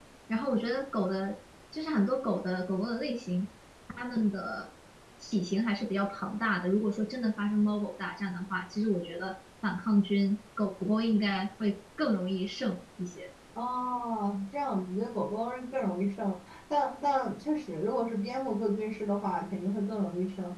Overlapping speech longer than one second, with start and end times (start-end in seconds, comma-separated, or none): none